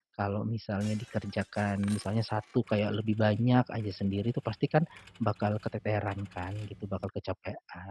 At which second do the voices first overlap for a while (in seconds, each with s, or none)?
none